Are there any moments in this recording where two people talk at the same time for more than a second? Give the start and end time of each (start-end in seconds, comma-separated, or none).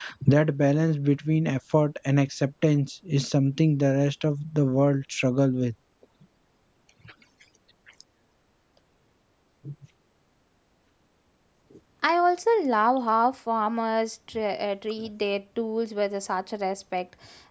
none